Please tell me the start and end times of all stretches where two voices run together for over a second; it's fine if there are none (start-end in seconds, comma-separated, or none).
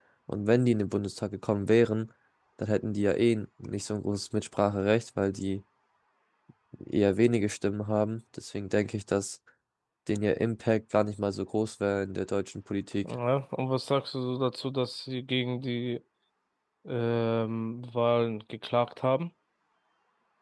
none